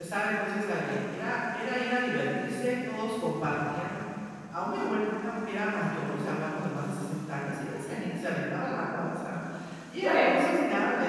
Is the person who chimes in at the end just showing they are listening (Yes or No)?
Yes